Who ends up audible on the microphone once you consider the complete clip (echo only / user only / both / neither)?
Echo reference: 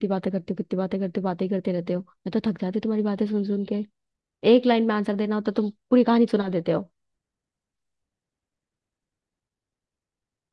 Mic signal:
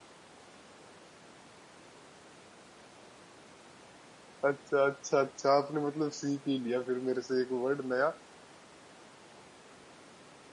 user only